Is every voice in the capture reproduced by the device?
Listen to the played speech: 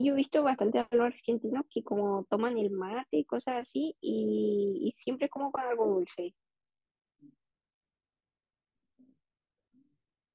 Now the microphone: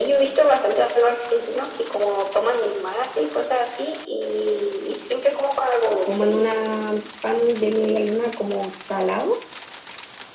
No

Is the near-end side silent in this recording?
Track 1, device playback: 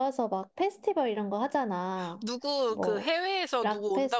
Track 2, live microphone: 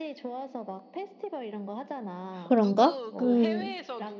No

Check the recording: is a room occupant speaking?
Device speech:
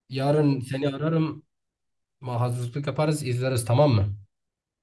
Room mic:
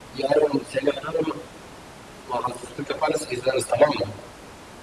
No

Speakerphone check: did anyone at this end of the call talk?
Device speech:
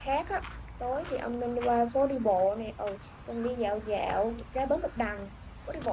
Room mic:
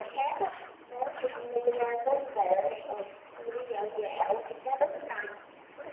No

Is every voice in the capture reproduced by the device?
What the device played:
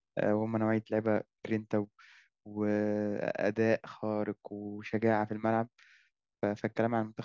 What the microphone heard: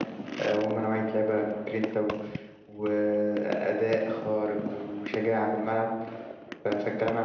Yes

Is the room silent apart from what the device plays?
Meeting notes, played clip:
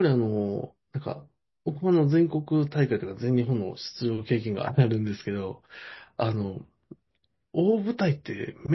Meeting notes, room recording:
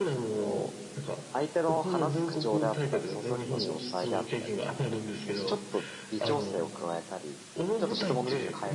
No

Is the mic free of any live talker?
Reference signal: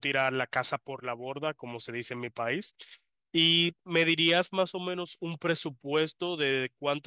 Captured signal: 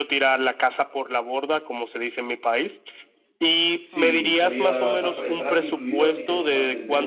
No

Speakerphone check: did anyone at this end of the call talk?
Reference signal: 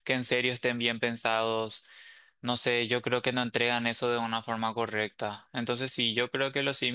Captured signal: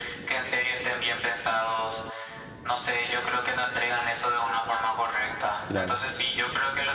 Yes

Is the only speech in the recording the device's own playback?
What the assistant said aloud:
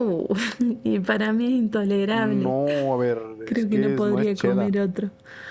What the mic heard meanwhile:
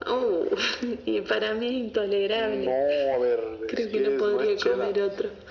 Yes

